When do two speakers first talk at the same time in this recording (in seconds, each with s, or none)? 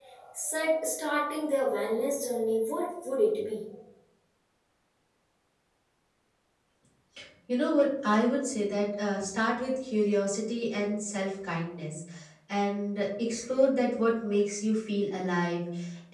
none